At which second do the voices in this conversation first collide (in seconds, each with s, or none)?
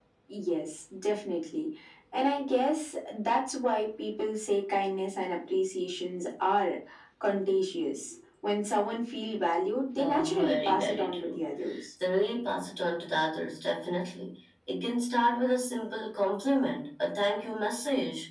10.0 s